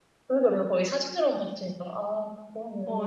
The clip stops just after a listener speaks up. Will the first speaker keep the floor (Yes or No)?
No